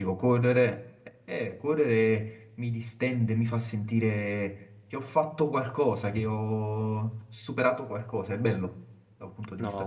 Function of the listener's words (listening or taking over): taking over